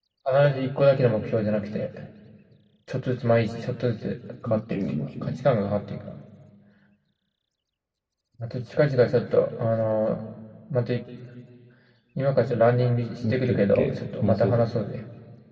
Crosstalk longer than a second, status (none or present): present